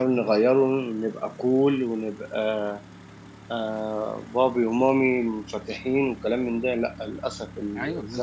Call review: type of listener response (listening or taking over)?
taking over